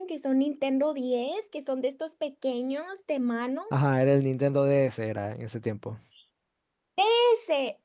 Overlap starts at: none

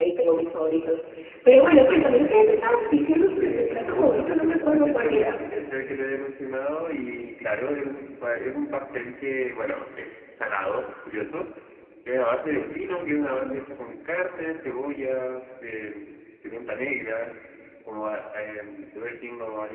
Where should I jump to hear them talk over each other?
3.4 s

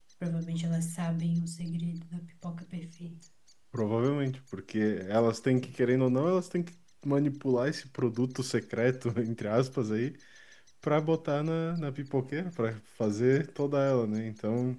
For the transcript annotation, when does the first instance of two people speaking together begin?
none

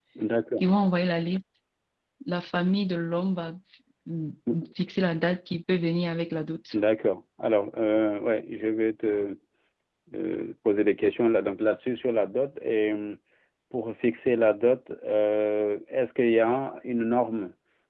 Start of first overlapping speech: none

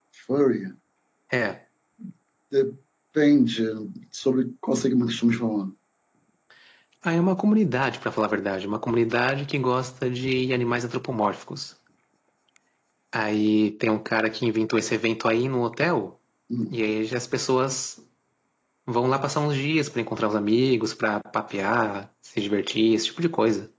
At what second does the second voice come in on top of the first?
none

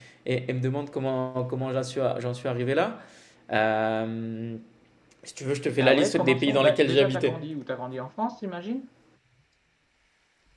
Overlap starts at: 5.8 s

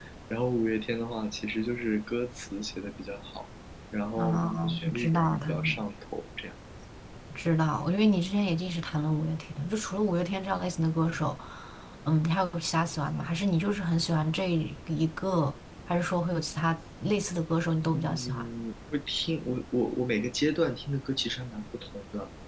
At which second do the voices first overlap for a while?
4.2 s

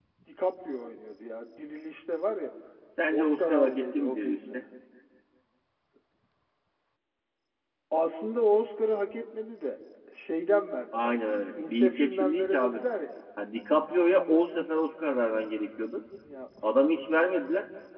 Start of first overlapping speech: 3.1 s

